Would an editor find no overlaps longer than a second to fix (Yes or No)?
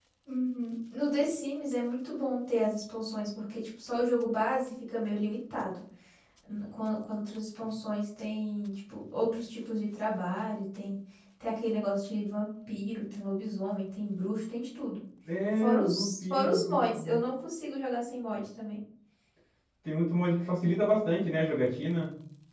No